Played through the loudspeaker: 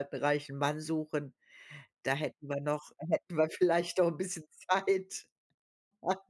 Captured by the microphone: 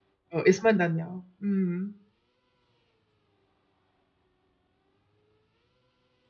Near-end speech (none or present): present